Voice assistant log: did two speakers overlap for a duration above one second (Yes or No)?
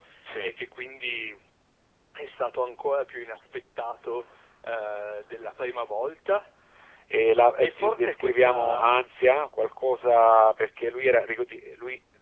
Yes